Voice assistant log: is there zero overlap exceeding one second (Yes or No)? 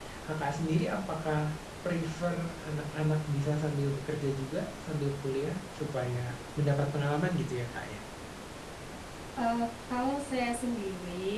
Yes